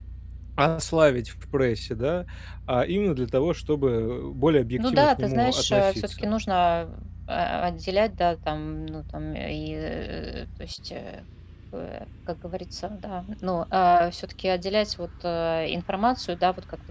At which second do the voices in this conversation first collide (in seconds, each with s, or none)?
4.8 s